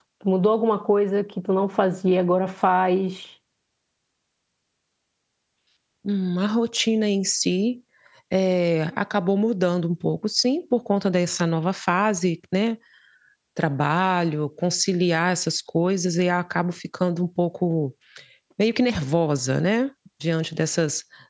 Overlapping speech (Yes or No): No